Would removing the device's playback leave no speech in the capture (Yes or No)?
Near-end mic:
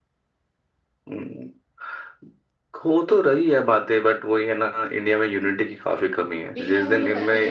No